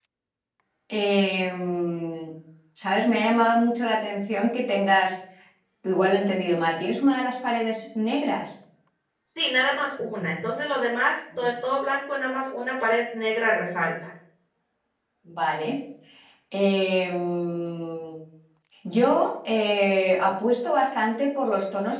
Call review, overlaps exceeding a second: none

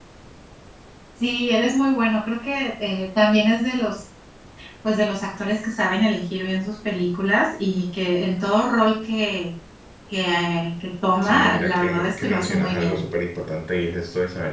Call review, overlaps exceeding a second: present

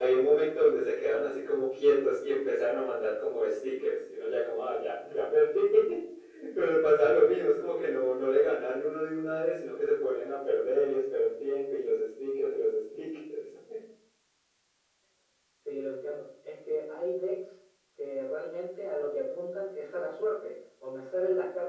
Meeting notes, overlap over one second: none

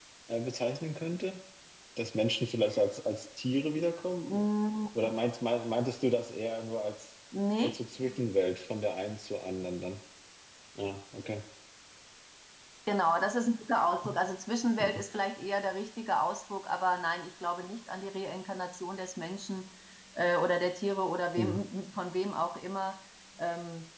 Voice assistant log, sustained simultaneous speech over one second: none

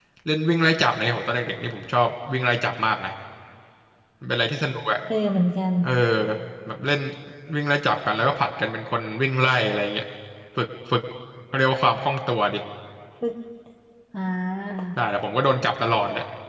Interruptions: none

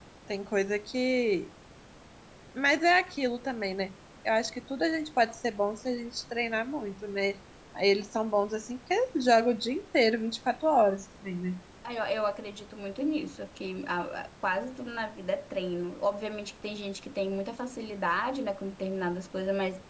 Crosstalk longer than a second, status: none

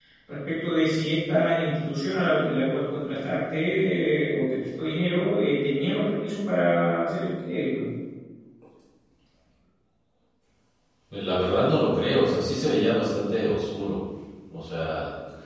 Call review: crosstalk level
none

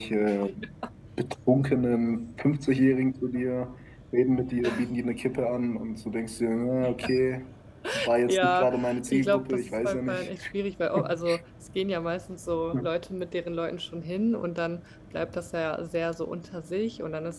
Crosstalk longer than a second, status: present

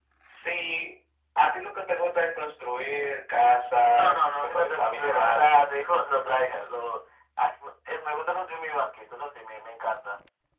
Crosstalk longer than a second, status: present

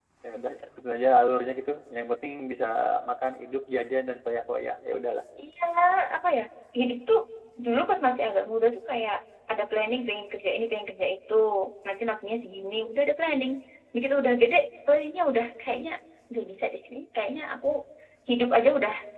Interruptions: none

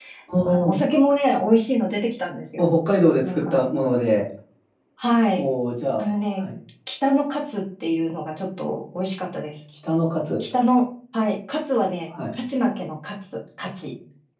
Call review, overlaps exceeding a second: none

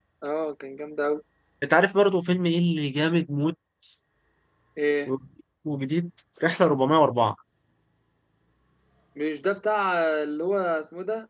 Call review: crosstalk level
none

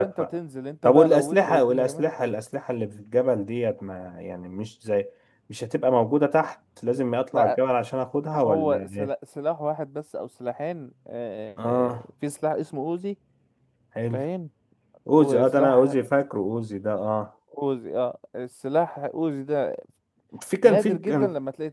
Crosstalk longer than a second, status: present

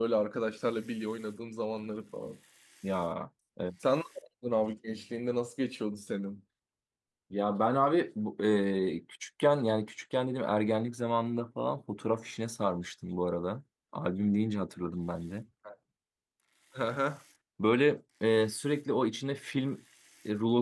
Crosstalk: none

